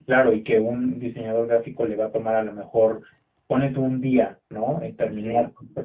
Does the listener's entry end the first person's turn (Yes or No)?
No